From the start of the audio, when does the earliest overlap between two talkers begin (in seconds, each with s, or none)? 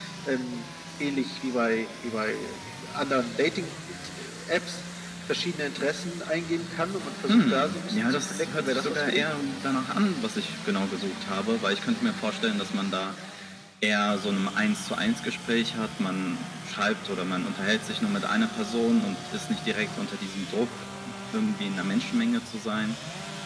7.2 s